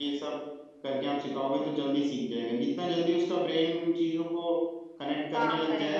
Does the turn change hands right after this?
No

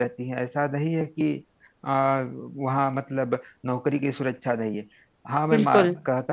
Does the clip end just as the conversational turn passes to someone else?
No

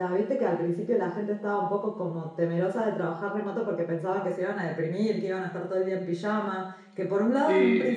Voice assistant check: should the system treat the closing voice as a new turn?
No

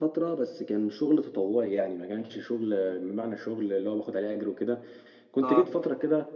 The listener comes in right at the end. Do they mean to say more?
No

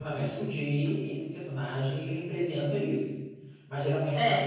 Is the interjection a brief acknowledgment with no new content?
Yes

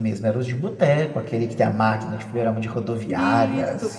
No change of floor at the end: No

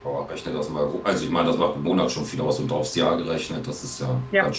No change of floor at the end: No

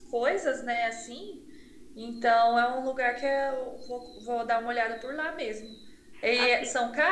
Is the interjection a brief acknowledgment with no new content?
Yes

